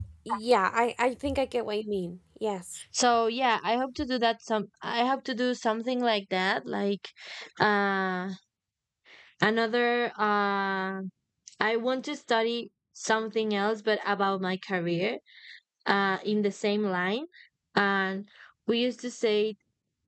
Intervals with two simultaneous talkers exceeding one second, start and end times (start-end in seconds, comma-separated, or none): none